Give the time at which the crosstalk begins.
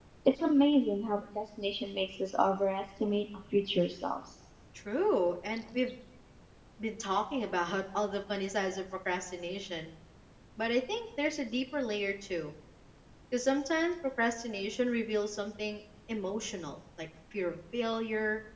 none

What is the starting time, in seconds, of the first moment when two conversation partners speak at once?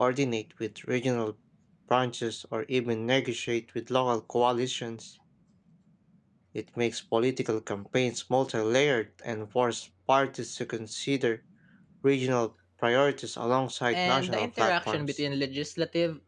13.9 s

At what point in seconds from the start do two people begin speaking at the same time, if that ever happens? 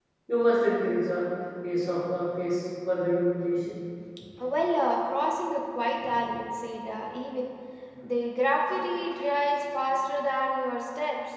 none

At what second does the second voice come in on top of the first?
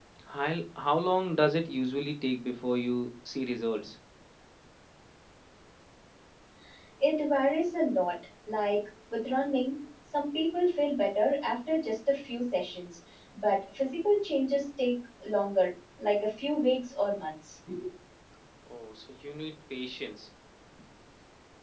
none

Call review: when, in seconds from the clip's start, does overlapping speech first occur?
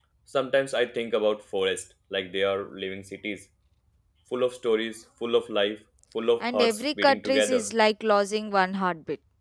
6.4 s

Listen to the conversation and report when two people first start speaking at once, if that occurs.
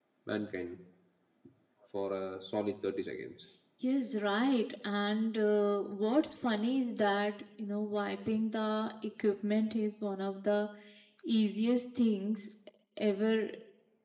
none

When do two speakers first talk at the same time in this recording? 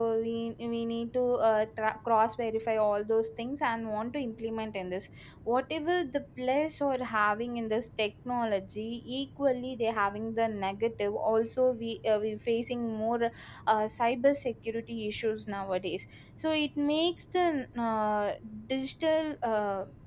none

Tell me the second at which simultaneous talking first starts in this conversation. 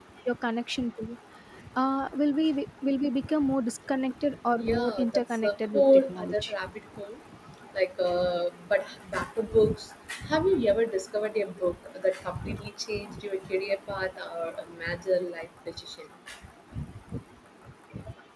4.6 s

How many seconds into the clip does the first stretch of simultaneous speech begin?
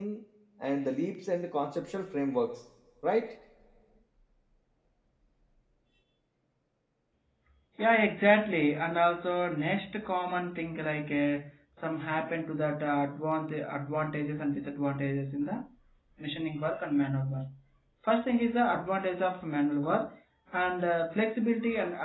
none

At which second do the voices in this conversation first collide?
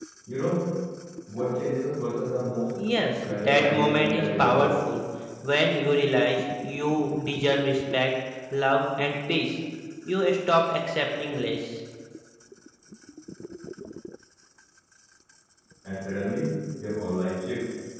3.3 s

